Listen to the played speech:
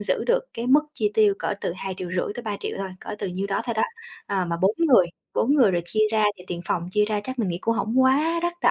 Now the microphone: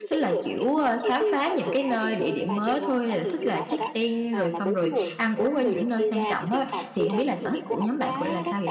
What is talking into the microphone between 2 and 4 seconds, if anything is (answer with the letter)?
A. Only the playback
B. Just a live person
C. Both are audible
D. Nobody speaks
C